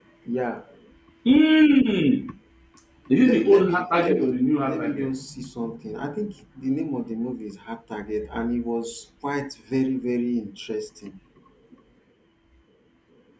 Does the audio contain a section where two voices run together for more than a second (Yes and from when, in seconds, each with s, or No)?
Yes, from 3.2 s